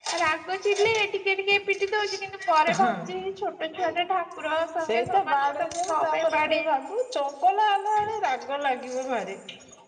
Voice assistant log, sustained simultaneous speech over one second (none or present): present